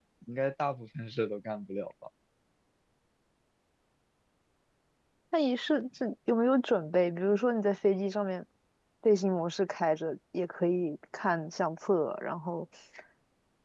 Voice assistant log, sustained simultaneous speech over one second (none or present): none